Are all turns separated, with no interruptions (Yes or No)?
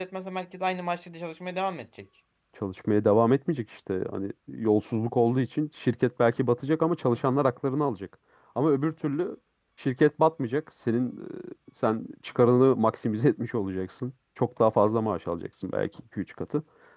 Yes